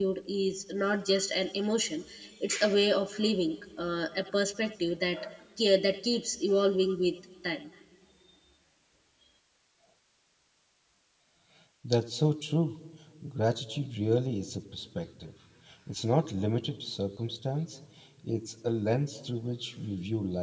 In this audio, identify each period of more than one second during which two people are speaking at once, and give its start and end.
none

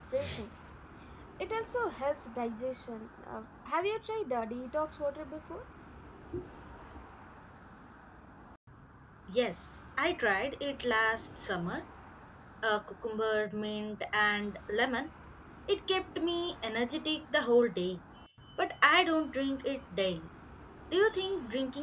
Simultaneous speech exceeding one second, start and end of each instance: none

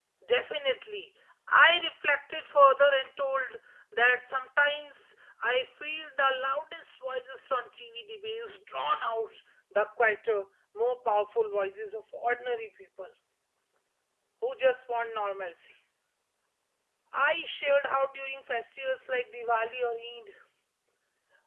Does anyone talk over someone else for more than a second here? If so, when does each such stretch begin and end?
none

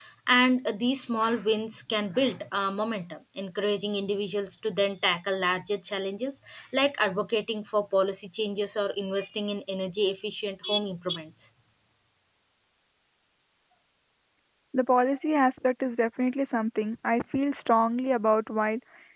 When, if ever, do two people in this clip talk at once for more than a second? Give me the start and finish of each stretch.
none

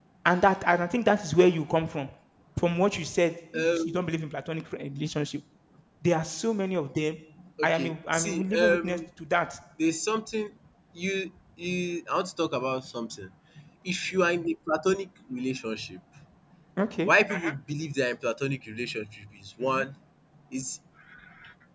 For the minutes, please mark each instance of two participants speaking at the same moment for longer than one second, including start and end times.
7.6-9.0

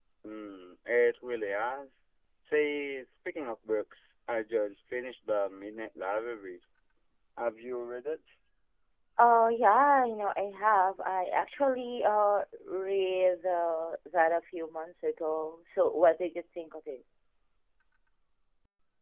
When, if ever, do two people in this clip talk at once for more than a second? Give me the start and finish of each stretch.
none

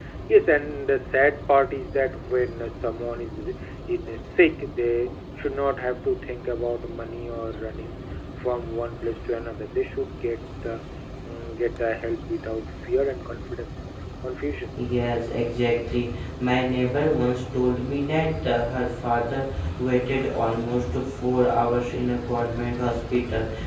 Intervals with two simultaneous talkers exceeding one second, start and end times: none

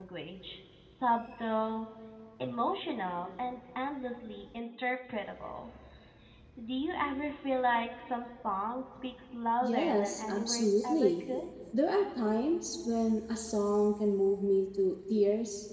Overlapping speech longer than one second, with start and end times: 9.6-11.1

